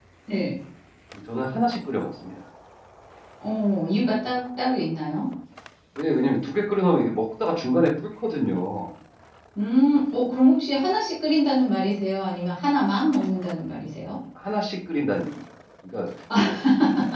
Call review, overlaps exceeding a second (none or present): none